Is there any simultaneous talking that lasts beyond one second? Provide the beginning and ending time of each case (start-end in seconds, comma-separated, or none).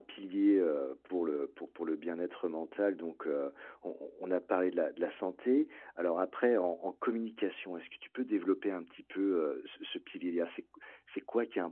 none